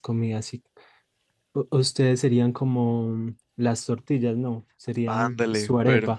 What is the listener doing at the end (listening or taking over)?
taking over